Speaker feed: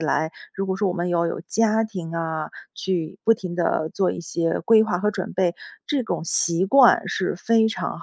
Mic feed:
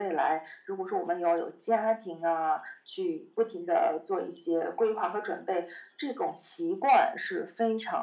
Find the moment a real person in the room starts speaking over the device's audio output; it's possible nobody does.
none

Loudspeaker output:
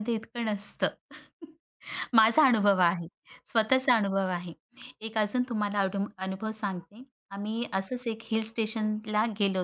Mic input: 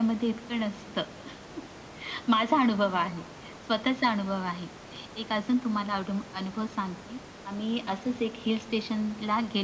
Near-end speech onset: none

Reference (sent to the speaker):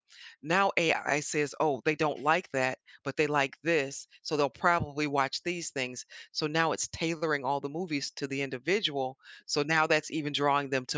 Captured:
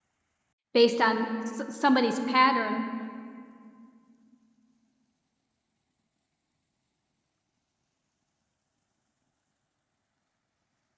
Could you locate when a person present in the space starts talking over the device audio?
0.7 s

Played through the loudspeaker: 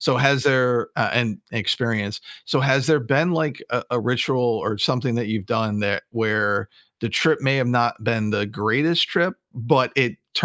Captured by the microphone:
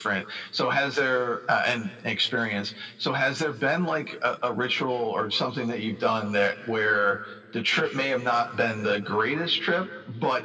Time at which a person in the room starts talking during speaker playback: none

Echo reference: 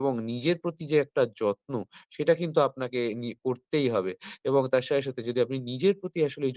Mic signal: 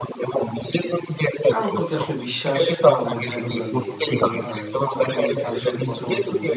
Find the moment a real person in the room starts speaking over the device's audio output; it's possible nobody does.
1.5 s

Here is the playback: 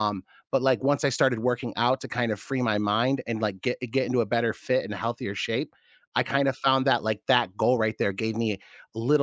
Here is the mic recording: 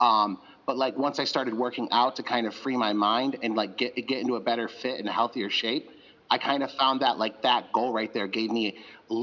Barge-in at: none

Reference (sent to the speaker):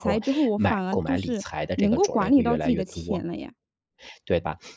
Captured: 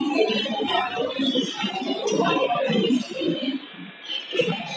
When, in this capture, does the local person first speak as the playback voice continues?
none

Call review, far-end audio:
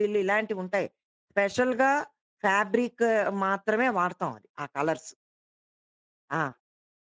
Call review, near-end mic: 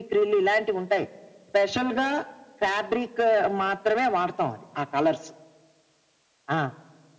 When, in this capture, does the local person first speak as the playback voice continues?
none

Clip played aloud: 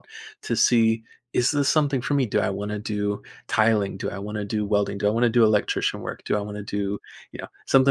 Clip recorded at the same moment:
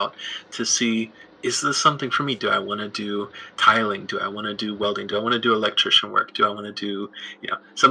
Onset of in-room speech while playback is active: none

